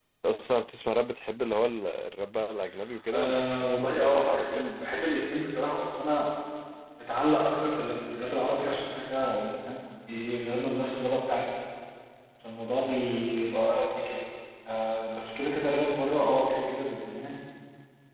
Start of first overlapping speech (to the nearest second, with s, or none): 3 s